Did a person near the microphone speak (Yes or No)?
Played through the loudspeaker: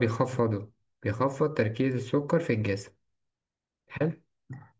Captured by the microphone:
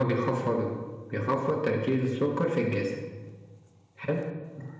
No